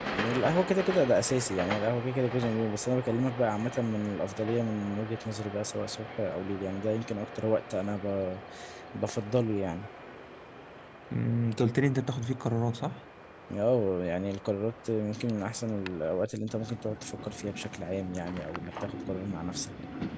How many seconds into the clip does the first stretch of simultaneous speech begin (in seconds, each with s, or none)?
none